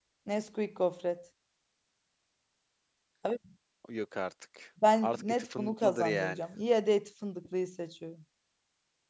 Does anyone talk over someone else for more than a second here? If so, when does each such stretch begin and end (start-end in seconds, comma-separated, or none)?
5.0-6.4